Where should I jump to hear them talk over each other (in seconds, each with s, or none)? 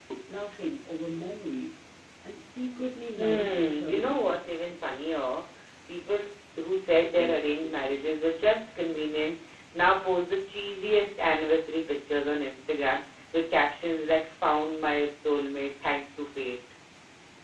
3.2 s